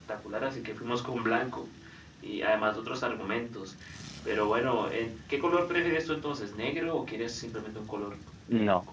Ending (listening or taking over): taking over